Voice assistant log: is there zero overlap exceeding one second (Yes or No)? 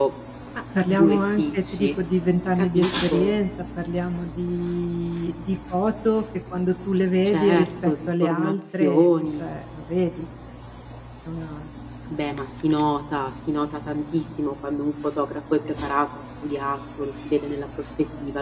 No